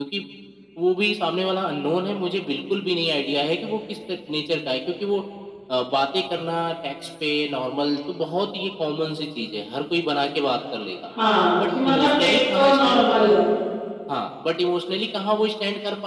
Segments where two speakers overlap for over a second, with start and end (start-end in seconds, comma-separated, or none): 11.7-13.4